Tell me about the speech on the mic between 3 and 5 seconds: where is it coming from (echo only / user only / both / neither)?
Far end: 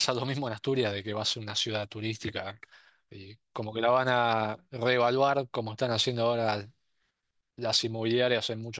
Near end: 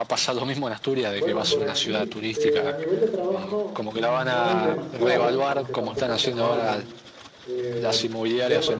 both